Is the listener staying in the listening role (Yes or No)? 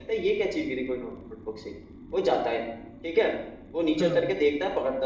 Yes